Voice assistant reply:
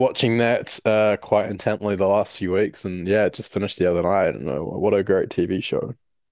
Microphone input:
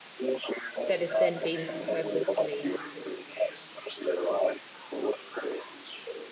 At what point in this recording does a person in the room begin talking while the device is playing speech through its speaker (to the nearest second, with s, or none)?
1 s